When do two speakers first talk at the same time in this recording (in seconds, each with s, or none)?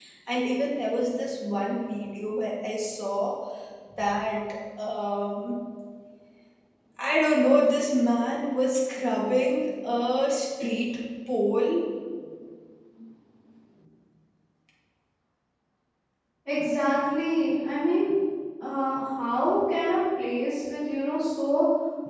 none